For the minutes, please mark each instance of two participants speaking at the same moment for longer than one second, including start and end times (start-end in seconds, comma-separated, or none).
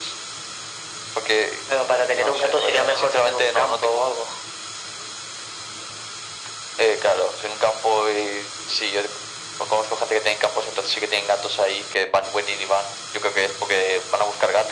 2.1-4.0